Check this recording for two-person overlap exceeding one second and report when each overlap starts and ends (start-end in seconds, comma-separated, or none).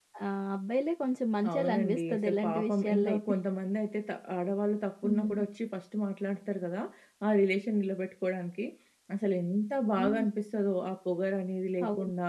1.5-3.2